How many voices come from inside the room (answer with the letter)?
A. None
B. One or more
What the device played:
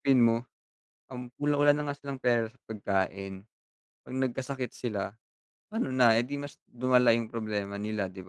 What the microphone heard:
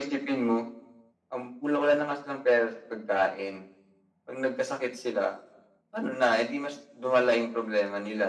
A